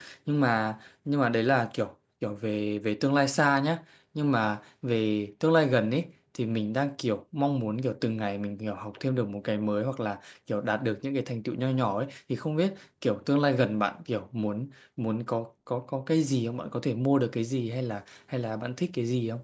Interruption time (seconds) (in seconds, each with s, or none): none